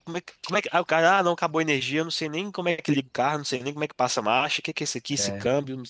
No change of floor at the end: Yes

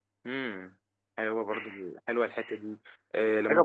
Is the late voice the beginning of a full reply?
No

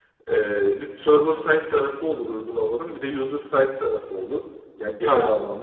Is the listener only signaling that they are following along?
Yes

